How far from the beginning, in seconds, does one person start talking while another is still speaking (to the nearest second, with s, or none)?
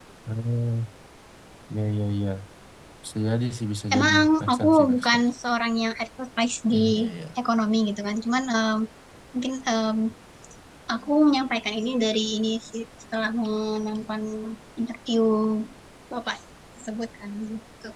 4 s